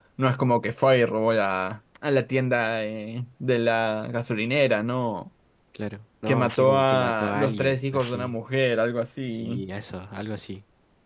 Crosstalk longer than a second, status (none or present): present